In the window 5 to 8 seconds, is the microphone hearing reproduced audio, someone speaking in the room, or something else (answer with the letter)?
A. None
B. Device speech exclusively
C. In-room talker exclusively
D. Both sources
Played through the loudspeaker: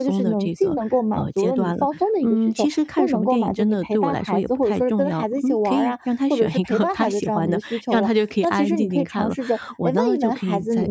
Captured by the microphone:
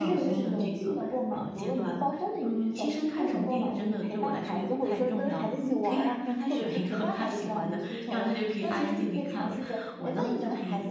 B